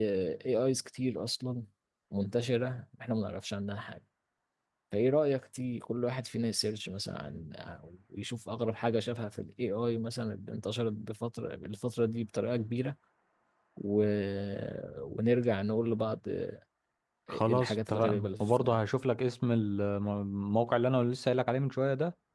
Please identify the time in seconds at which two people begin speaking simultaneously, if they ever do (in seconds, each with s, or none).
17.3 s